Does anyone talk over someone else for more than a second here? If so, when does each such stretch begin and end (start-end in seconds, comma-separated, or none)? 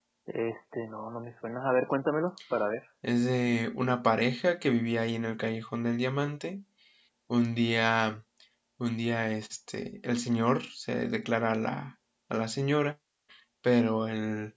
none